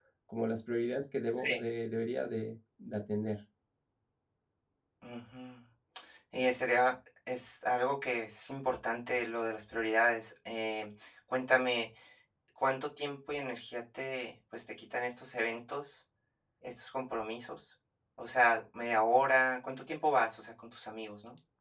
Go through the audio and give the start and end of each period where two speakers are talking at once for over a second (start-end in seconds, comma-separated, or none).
none